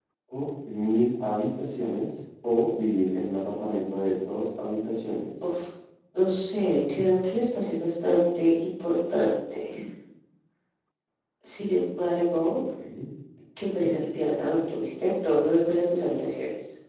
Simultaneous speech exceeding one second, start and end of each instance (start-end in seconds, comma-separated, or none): none